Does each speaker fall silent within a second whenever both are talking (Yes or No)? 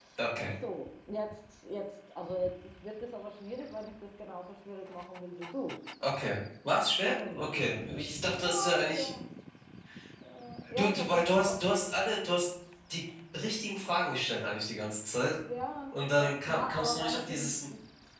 No